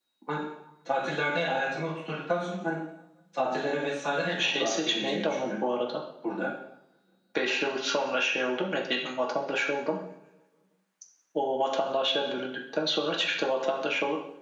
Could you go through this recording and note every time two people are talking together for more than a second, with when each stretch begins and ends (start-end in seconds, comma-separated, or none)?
4.3-5.6